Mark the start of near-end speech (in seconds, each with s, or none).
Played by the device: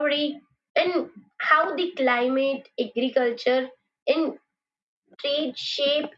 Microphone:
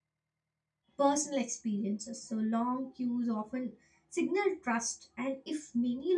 1.0 s